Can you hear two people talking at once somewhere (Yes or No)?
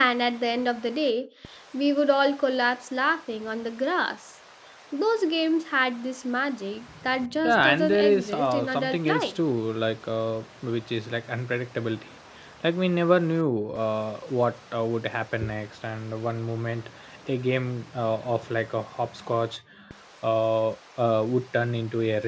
Yes